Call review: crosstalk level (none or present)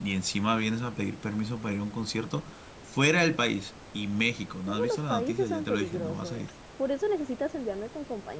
present